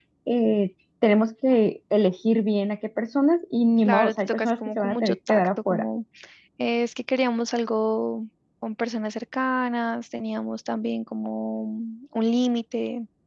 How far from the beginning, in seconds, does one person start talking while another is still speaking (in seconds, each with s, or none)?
3.8 s